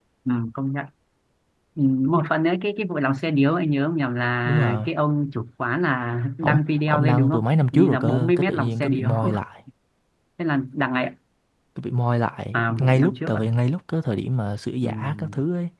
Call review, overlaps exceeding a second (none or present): present